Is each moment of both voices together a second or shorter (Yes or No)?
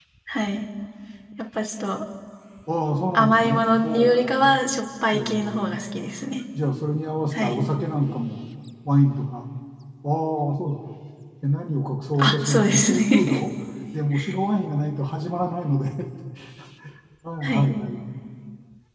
No